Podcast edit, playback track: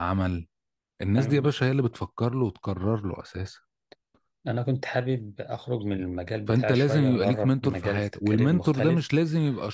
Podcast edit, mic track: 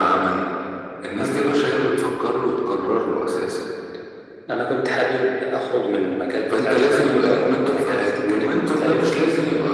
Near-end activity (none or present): none